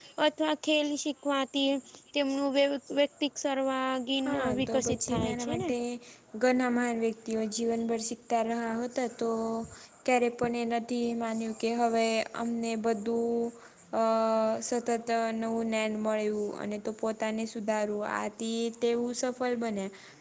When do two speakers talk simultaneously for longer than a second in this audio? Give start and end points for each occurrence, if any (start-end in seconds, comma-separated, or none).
4.2-5.7